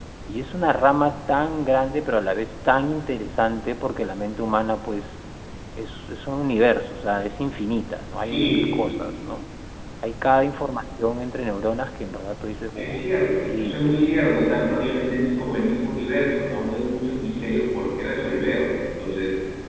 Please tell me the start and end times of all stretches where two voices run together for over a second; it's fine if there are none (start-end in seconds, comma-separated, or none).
12.8-14.0